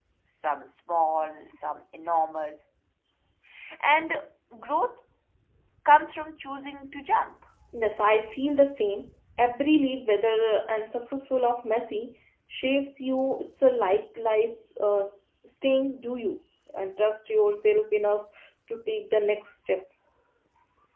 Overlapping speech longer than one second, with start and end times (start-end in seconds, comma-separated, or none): none